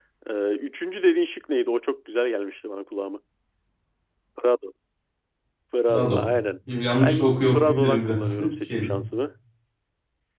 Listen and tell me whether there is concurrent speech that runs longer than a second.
Yes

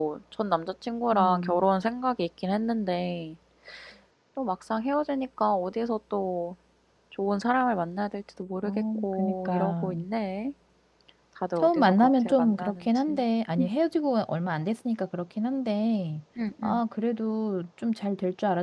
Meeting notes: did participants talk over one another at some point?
Yes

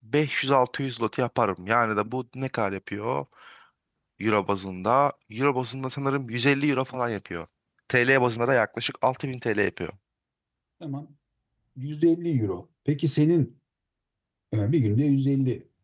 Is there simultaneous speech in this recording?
No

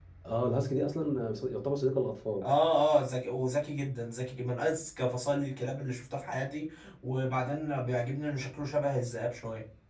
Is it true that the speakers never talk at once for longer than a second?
Yes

